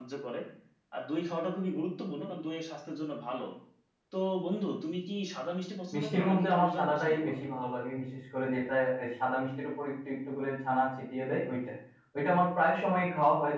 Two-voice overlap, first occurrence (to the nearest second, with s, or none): 6 s